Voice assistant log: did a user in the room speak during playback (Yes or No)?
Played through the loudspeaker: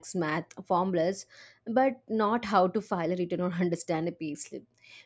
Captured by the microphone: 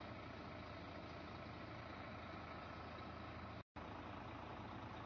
No